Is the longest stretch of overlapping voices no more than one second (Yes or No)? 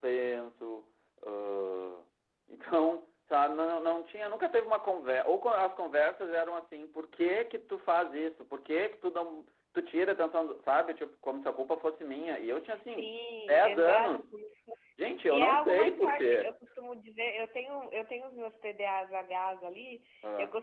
No